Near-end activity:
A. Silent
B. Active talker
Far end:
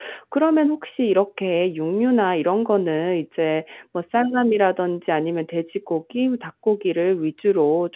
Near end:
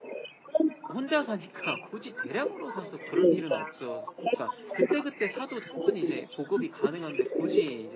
B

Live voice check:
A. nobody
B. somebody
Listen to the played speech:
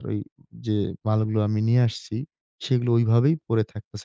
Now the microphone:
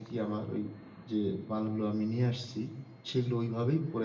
A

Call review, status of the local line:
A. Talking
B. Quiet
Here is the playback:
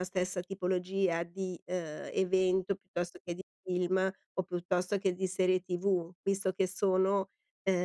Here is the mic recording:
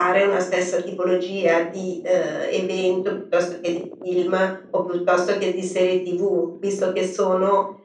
B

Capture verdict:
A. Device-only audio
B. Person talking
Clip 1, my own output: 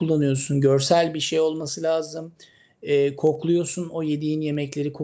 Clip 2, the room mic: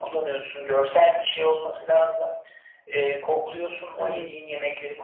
B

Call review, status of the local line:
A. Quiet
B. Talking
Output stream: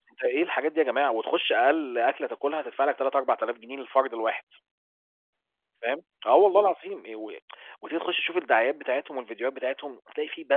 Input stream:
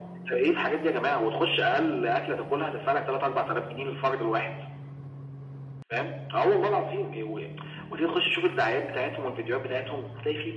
A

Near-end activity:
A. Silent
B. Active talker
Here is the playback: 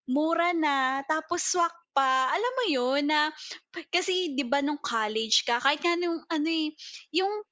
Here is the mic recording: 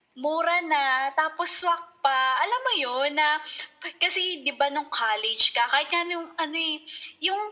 A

